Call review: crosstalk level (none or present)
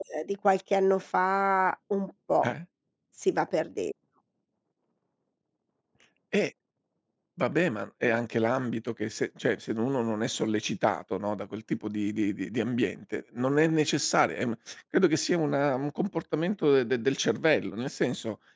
none